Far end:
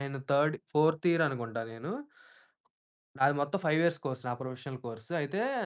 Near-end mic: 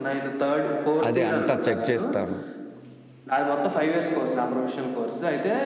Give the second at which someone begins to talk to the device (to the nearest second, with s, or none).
1 s